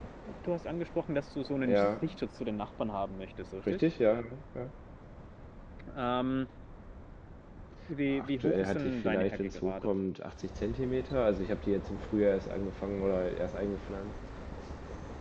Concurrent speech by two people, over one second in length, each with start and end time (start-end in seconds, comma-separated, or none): 8.2-9.9